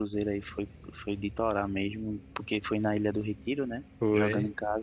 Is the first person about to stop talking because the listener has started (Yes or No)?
No